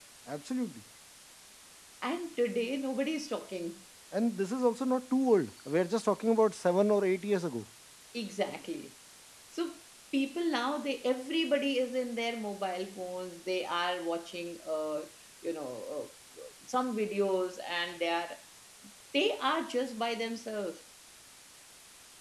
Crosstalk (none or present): none